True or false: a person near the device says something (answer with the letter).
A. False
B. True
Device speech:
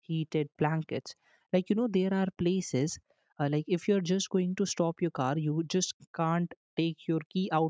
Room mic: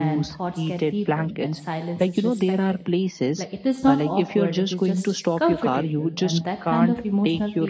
B